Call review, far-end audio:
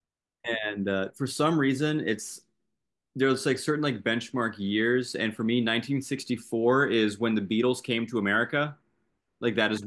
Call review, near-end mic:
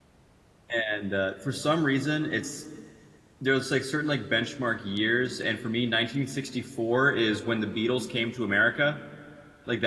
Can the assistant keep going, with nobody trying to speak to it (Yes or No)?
Yes